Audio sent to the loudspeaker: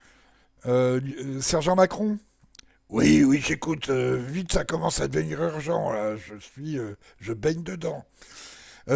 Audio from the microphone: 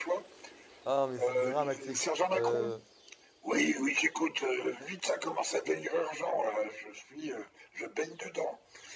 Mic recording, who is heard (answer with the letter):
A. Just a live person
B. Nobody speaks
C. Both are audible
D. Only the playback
C